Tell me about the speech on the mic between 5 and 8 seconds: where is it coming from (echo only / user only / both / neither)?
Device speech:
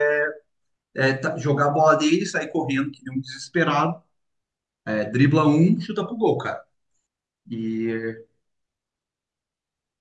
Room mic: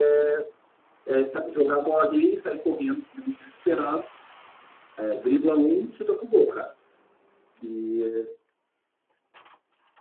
echo only